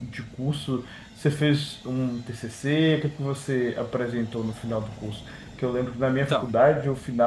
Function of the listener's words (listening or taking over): listening